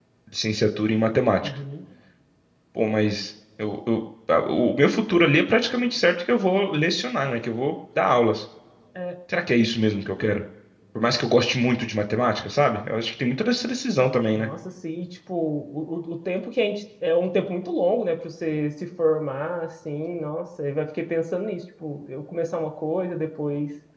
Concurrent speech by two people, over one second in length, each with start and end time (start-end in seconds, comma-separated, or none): none